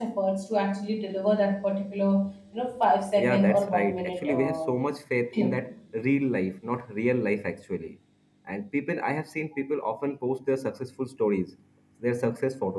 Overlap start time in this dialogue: 3.2 s

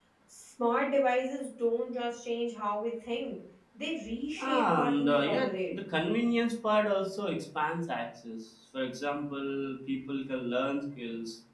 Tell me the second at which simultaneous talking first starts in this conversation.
4.4 s

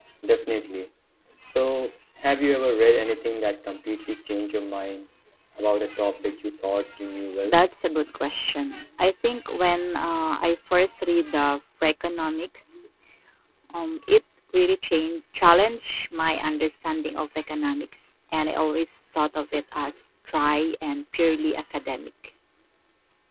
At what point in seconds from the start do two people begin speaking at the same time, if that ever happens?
none

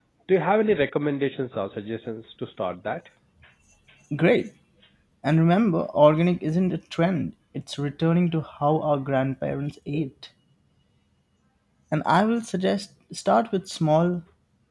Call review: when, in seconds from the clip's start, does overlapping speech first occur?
none

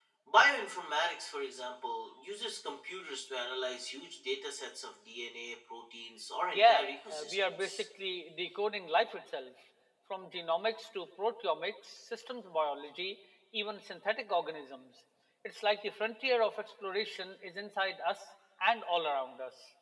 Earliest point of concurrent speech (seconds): 6.5 s

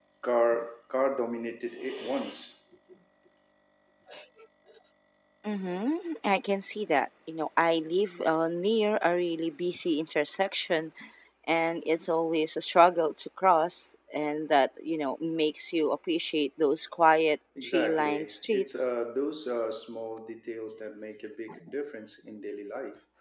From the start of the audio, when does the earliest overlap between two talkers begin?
17.6 s

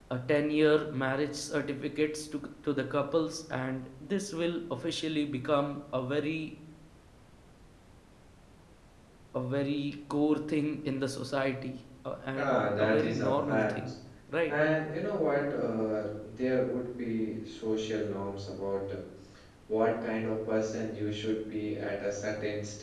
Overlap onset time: 12.4 s

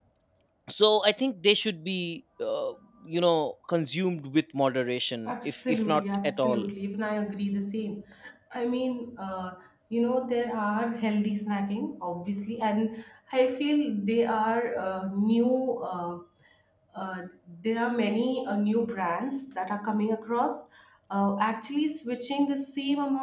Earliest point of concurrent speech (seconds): 5.3 s

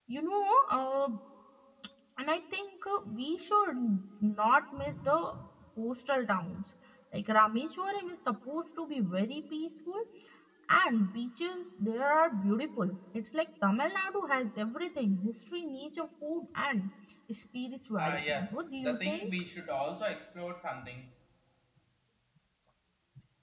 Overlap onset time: 18.0 s

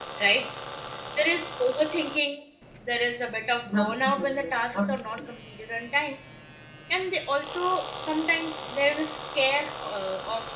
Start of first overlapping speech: 3.7 s

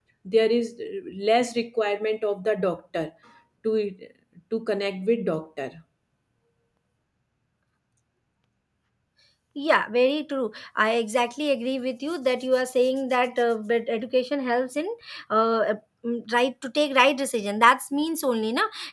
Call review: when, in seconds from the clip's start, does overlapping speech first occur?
none

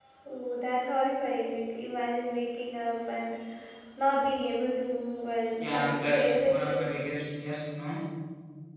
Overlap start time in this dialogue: 5.6 s

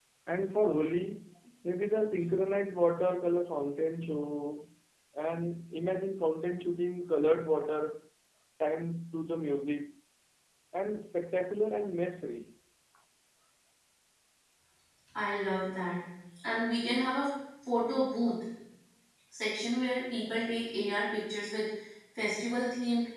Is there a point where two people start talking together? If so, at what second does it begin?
none

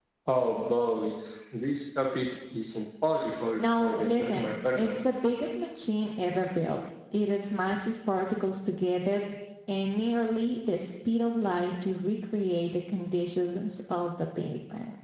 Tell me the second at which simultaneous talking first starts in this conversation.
3.8 s

